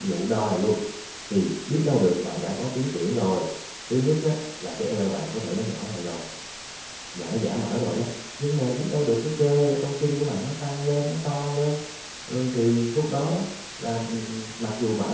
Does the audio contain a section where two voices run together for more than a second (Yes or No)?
No